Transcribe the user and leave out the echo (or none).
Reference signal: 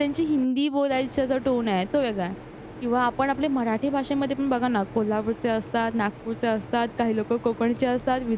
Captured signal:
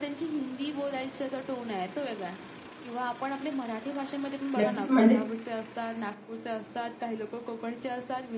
नक्कीच म्हणजे